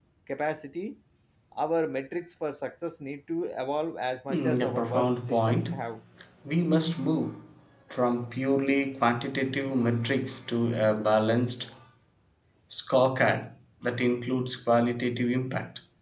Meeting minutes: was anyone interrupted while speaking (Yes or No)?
Yes